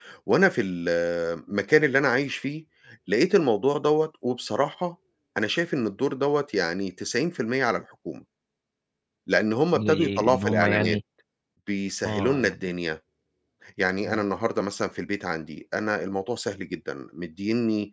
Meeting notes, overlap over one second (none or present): present